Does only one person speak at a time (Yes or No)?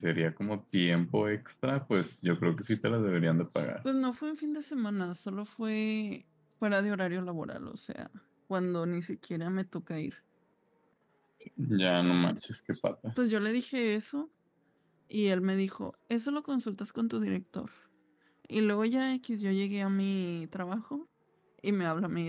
Yes